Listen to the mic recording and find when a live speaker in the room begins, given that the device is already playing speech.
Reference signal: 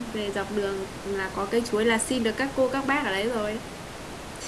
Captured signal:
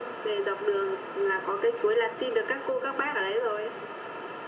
none

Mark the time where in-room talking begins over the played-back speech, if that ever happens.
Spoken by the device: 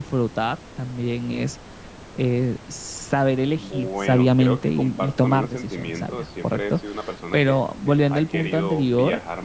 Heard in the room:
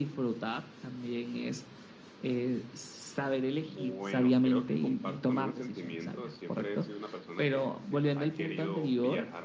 none

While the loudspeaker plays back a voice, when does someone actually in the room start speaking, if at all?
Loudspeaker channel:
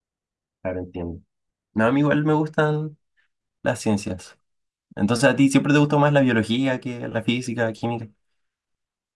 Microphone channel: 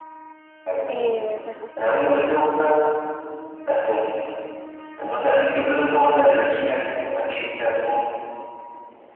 0.8 s

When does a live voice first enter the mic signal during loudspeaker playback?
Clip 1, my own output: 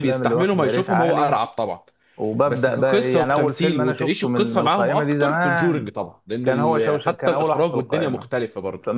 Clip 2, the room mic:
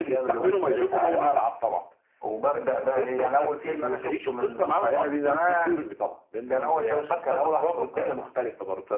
none

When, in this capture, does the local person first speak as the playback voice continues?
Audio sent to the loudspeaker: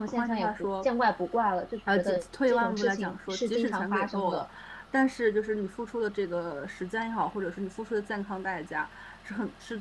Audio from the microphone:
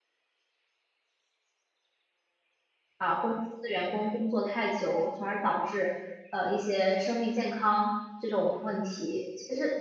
3.0 s

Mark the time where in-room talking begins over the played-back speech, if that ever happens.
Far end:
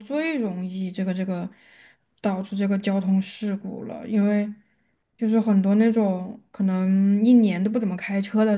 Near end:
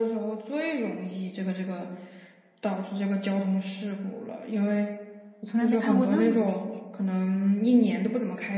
5.4 s

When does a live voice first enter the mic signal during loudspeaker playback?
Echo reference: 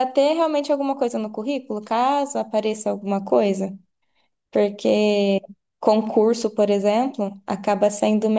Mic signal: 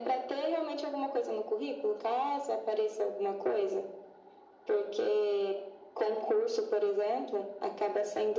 none

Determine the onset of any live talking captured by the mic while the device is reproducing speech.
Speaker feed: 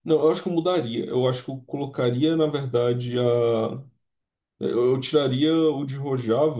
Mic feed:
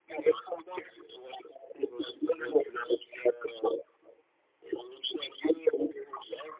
1.8 s

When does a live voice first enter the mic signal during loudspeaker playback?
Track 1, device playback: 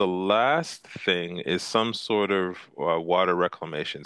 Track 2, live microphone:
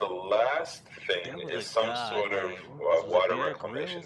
1.2 s

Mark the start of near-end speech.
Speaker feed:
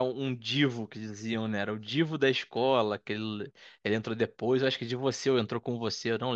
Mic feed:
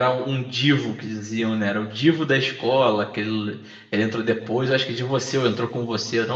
none

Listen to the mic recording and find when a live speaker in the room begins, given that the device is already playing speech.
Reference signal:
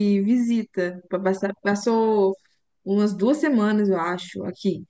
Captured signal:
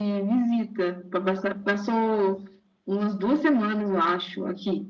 none

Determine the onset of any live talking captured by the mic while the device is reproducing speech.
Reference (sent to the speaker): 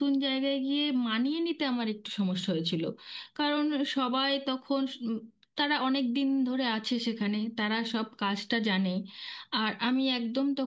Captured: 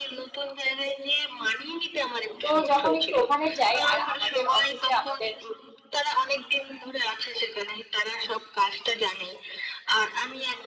2.4 s

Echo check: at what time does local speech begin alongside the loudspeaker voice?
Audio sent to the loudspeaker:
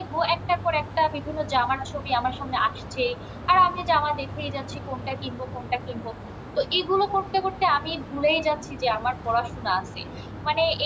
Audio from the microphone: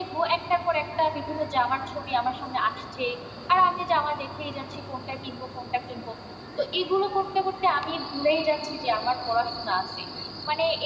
none

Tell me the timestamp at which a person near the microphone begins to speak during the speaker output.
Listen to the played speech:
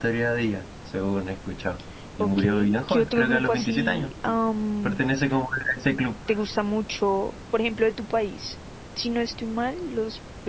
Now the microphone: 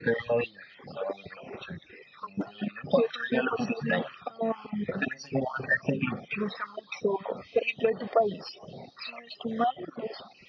none

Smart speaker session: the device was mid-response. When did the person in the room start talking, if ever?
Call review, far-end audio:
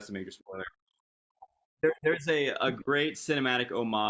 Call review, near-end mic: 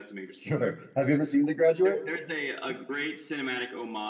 0.4 s

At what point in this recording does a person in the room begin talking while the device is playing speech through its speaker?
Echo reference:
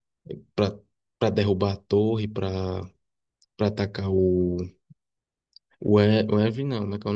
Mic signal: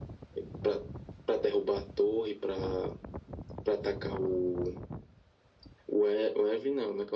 none

